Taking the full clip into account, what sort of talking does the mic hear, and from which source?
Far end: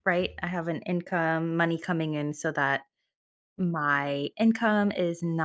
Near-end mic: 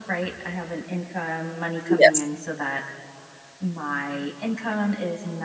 both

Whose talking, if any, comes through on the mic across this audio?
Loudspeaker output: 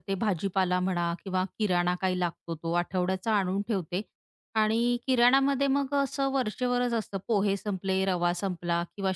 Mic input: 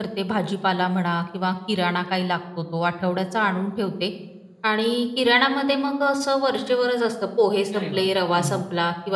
both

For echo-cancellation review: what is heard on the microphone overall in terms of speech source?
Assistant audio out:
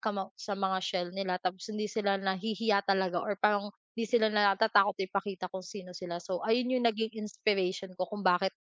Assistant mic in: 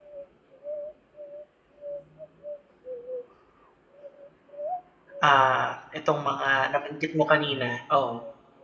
user only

